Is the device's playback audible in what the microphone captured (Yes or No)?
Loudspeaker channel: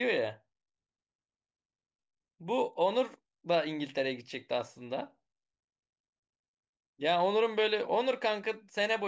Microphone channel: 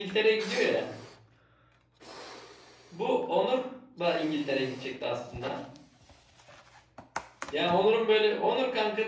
Yes